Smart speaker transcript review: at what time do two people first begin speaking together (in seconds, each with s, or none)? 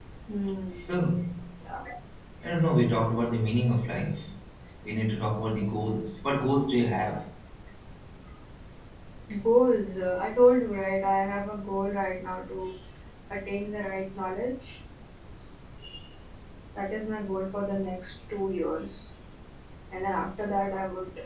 none